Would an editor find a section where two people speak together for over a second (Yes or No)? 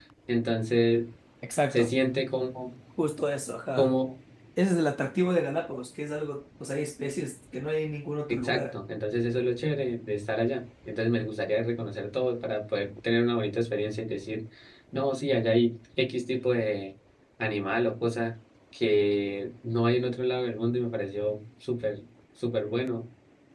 No